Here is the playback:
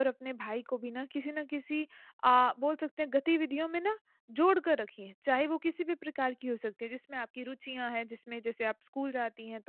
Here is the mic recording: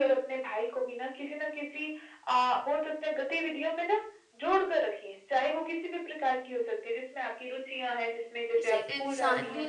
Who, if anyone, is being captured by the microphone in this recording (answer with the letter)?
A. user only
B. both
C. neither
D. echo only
B